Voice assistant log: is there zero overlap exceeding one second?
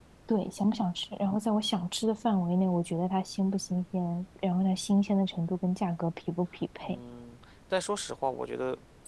Yes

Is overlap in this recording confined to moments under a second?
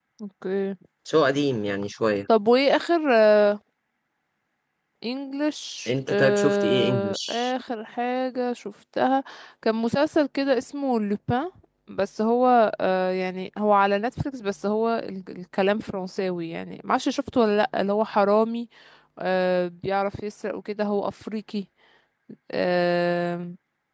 No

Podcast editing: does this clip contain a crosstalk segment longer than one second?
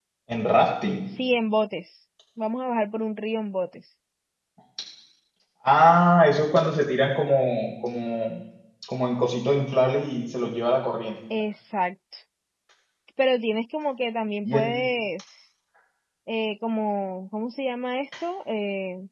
No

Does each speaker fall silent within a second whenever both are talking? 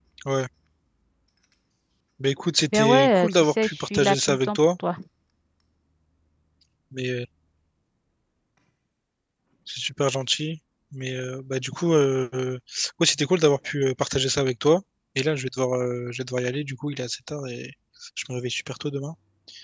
No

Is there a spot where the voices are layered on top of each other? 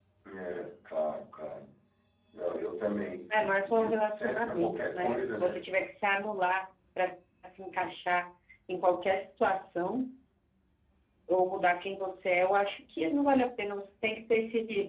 Yes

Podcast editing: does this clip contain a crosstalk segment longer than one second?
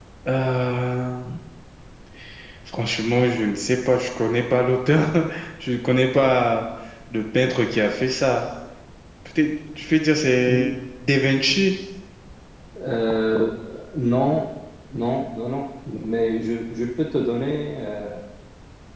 No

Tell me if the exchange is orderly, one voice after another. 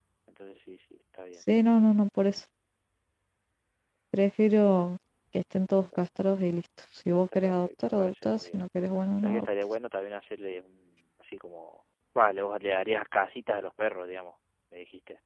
No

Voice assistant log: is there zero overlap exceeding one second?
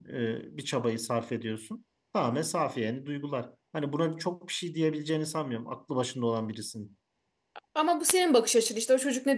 Yes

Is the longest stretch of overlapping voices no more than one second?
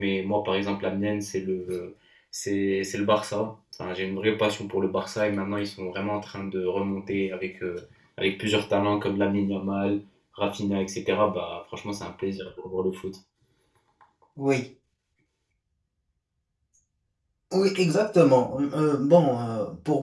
Yes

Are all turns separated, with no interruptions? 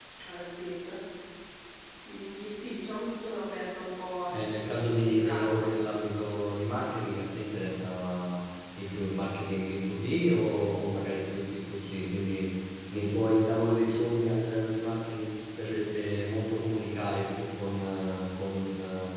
No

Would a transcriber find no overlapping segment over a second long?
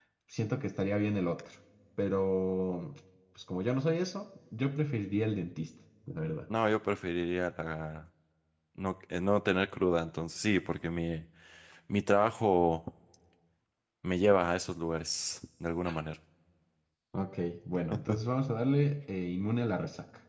Yes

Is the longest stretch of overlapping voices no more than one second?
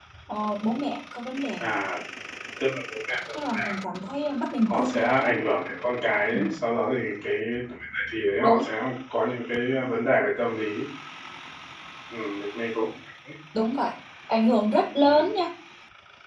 Yes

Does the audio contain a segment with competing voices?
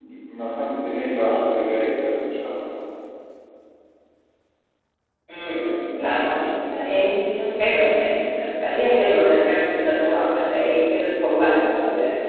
No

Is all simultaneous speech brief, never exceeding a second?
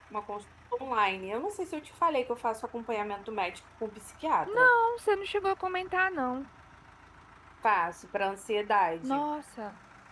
Yes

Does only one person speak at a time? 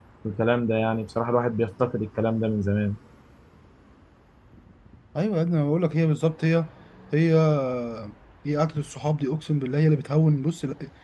Yes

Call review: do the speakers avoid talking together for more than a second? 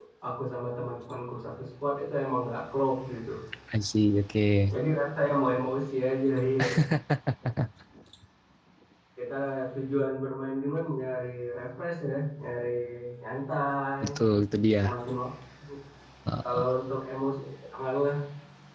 Yes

